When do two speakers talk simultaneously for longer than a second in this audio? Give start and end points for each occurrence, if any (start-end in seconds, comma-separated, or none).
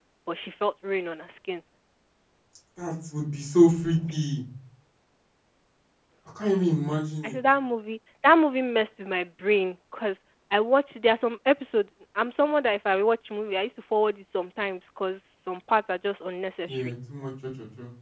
none